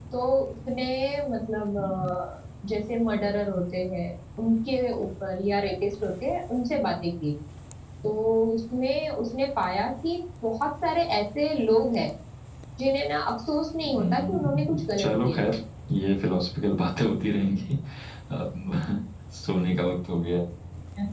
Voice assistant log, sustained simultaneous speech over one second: present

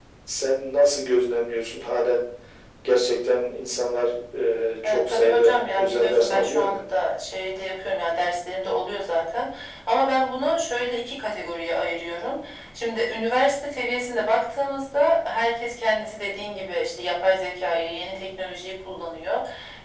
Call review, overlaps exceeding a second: present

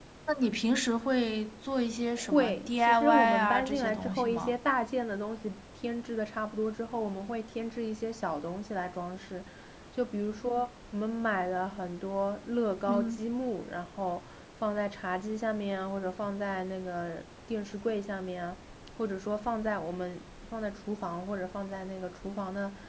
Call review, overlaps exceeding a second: present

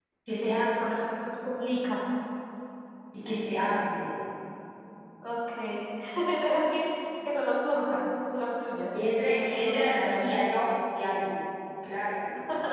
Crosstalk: present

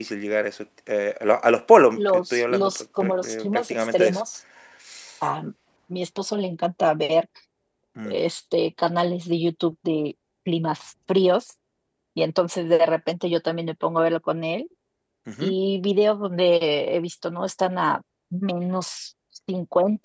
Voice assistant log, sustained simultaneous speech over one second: present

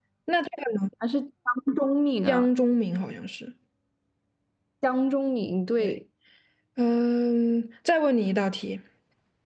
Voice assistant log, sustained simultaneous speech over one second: none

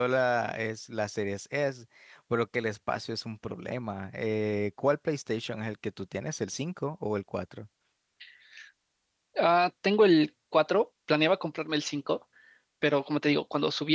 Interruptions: none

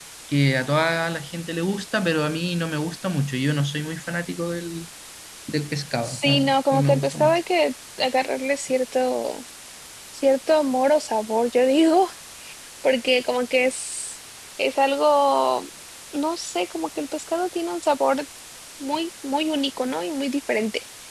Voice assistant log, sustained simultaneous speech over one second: present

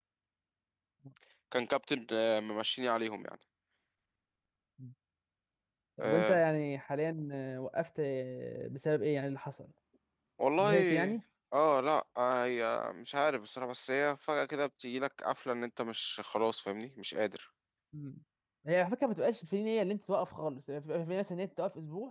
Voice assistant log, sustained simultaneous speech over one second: none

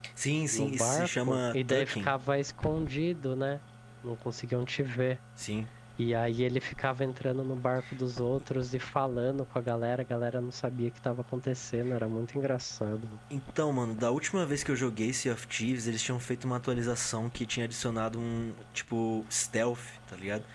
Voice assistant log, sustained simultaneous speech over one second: present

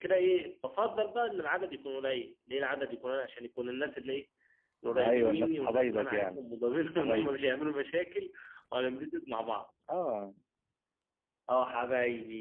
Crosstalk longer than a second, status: present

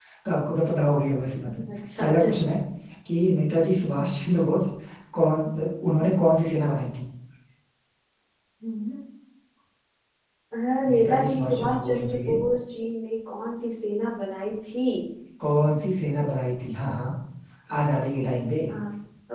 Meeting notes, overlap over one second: present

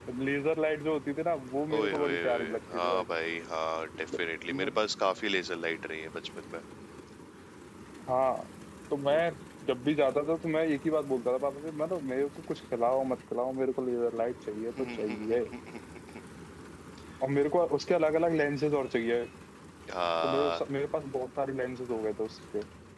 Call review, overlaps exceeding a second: present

